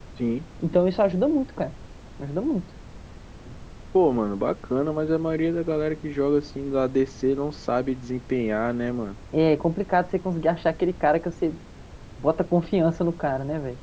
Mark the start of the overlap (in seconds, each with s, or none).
none